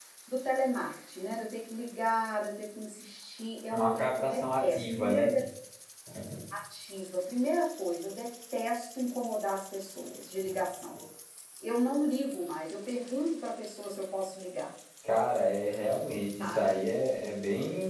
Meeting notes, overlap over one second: present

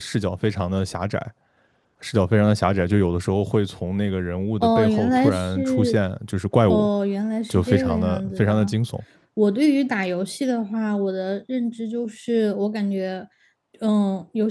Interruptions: present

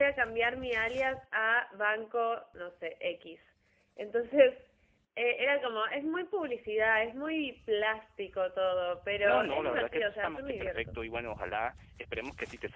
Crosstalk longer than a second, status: present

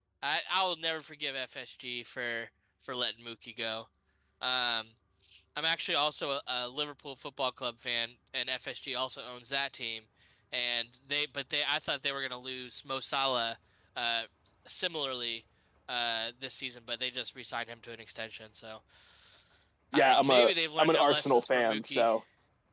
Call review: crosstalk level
present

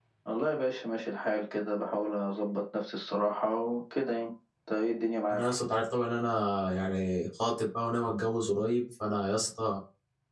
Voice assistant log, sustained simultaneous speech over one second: none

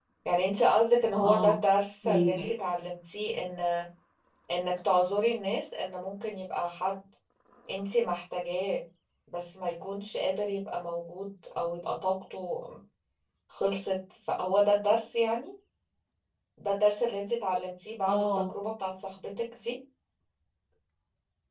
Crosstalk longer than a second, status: none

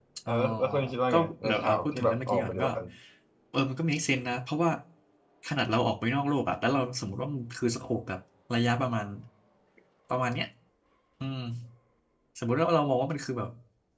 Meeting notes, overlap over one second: present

